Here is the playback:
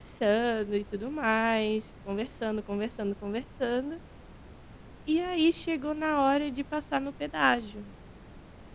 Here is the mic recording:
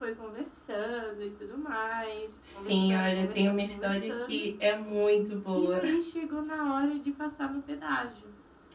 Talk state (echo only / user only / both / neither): both